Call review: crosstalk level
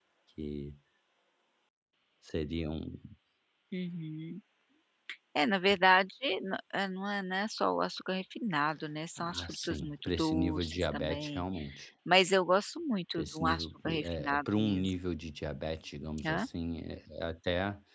present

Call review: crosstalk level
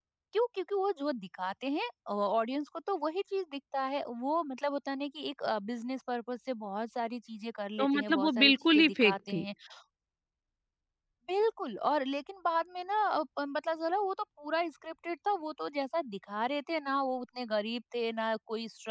present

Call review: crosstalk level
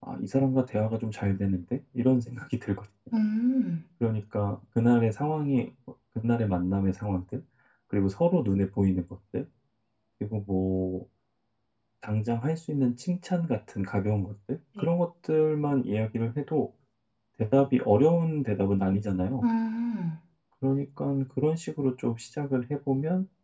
none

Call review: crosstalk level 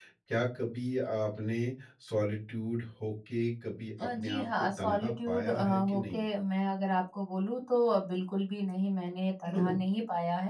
present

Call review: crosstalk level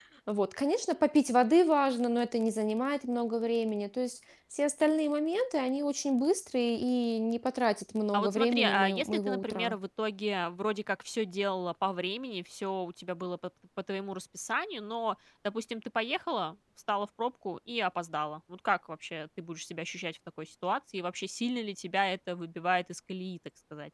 present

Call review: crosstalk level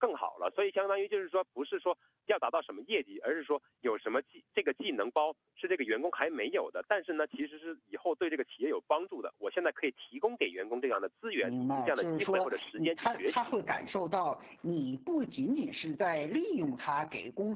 present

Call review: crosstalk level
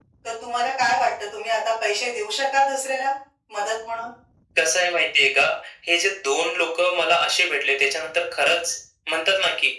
none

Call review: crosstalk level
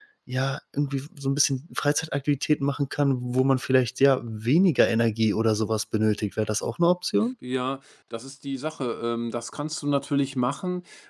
none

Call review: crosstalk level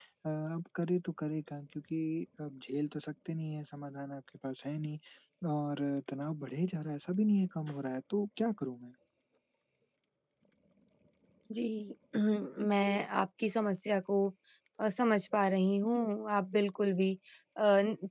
none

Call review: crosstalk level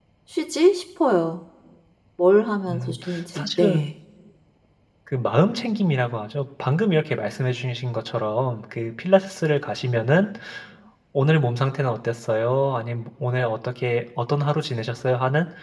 present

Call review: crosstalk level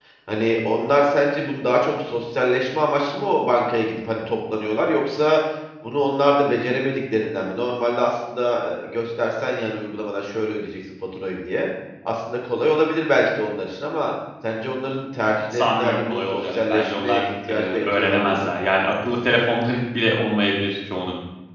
present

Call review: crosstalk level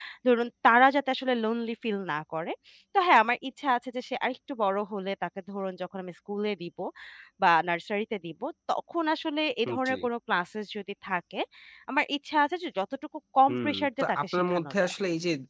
present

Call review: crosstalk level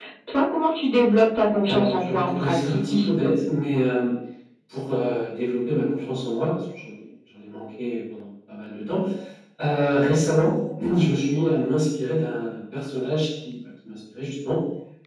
present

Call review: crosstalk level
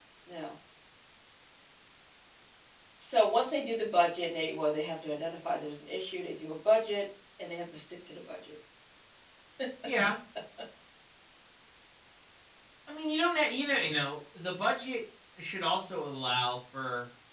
none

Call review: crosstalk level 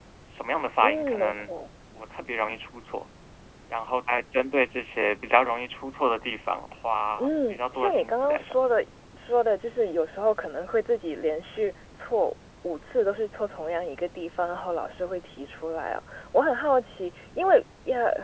present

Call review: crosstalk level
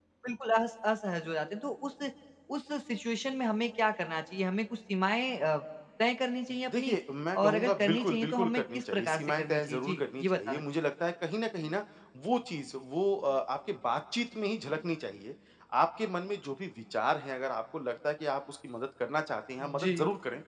present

